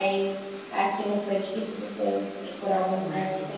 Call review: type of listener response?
taking over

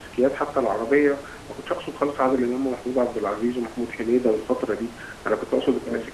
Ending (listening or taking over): listening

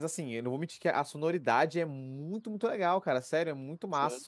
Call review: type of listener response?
listening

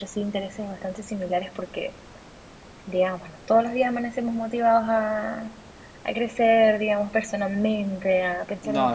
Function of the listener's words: listening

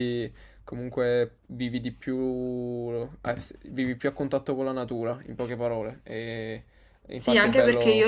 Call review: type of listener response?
taking over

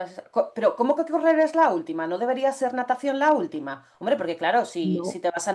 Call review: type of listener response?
listening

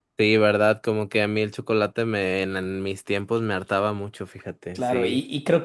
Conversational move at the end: taking over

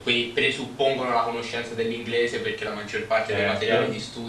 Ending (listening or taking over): listening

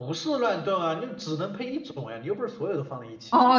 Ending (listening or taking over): taking over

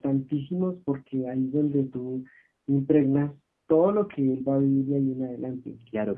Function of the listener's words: taking over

